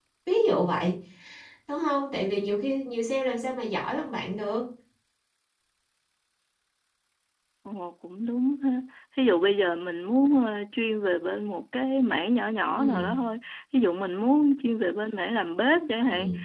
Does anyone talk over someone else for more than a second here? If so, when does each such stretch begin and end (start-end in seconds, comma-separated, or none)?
none